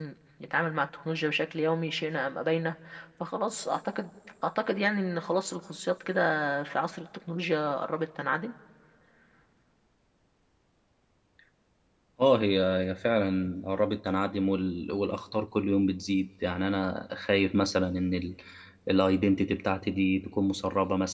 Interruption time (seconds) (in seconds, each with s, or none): none